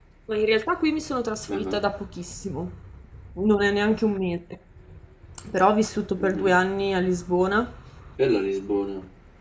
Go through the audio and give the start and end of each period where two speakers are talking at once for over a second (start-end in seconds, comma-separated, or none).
none